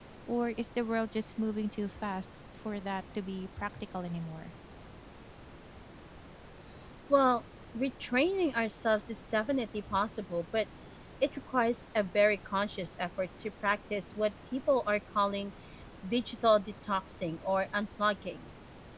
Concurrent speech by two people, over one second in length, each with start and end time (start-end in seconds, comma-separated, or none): none